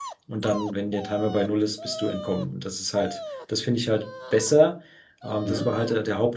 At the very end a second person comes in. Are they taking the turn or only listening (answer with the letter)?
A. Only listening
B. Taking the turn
A